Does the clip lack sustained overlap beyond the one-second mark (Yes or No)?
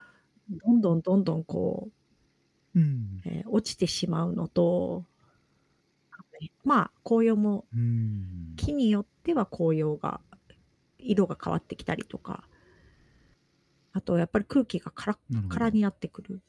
Yes